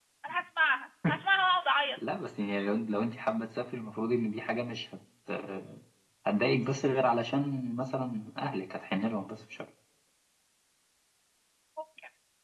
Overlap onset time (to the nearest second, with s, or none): none